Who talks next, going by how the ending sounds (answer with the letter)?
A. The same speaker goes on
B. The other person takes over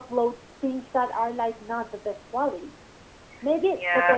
A